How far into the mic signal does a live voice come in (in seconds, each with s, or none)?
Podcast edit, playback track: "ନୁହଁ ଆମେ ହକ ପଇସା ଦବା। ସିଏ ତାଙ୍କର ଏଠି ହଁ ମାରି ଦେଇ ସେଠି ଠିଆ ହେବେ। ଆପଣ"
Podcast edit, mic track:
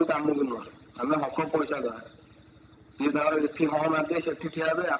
none